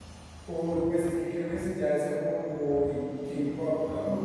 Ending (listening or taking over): taking over